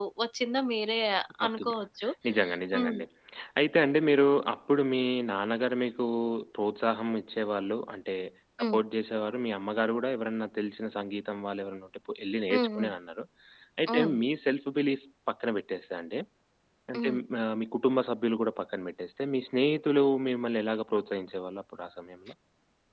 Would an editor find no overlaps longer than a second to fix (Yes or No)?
Yes